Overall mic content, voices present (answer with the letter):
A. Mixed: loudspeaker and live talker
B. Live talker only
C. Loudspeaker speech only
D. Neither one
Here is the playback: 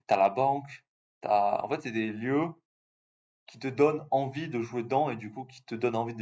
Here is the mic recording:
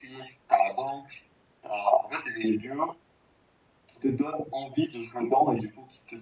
C